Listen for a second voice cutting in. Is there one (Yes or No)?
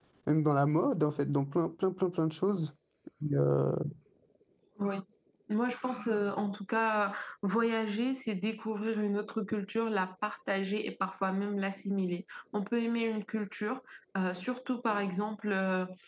No